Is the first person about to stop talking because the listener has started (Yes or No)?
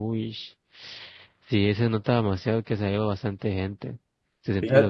Yes